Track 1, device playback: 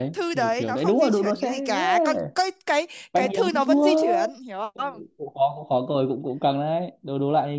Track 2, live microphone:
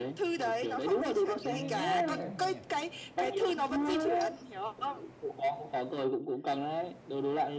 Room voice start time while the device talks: 1.4 s

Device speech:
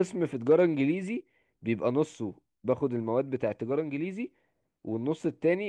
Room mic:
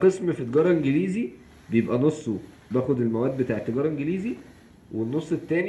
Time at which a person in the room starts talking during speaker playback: none

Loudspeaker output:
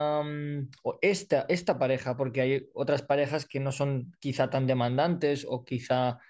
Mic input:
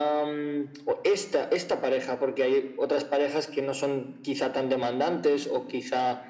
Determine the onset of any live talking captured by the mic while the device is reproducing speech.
none

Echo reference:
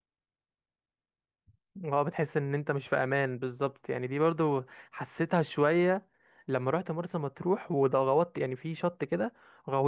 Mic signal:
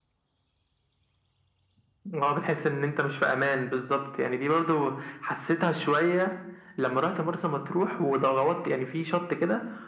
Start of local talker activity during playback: none

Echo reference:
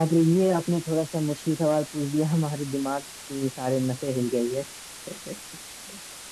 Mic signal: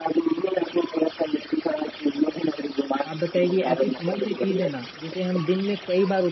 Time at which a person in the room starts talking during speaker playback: 3.1 s

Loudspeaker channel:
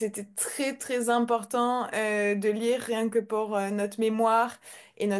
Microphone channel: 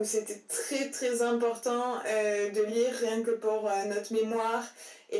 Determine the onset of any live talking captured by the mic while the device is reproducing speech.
none

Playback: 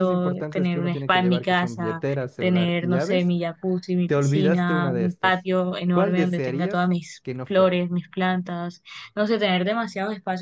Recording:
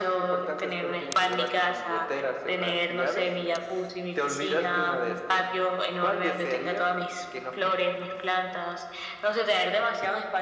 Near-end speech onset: none

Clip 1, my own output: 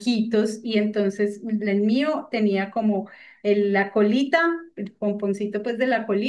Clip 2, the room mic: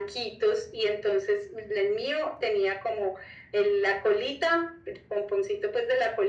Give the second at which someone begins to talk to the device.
none

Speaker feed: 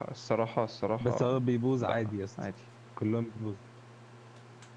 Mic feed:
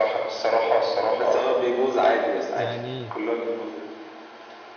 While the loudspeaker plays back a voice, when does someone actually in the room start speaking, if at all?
2.5 s

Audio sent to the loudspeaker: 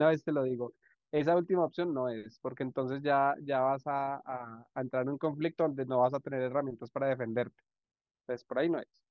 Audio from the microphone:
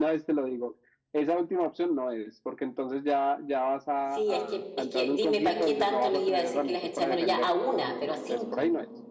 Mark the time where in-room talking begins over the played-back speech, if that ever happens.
4.0 s

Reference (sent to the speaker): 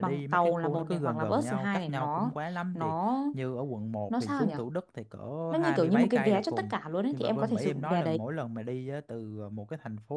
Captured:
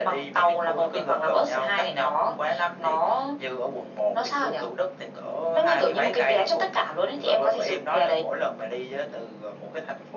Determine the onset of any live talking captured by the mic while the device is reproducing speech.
none

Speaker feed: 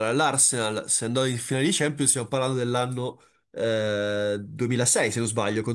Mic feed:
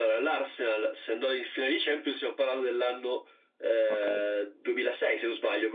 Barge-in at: 3.9 s

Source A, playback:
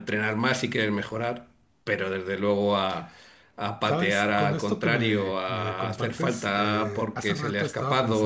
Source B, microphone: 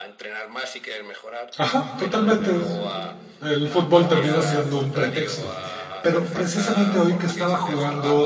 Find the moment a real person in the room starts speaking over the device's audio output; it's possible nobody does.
1.6 s

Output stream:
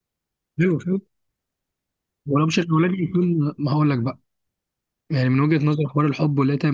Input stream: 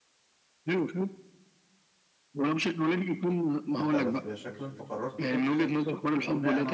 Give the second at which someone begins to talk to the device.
3.7 s

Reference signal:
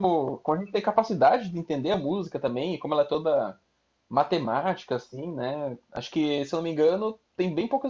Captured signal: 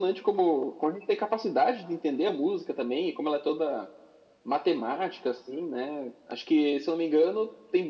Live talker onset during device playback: none

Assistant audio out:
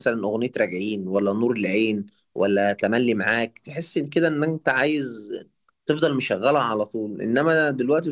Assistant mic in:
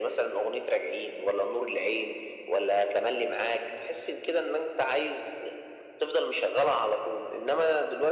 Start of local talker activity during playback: none

